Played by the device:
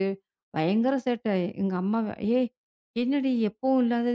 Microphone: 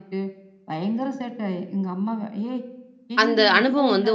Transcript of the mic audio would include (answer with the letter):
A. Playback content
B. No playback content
A